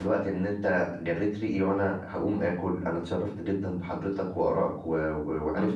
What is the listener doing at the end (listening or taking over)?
listening